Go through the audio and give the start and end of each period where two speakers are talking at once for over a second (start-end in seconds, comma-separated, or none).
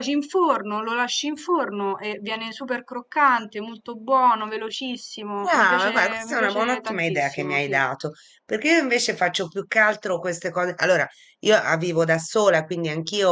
5.4-7.8